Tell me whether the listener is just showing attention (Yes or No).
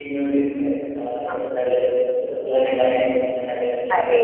Yes